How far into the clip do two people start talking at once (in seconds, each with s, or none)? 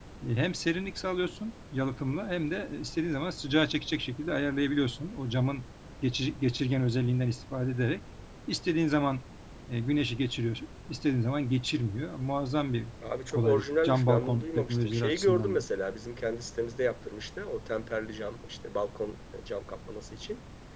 13.3 s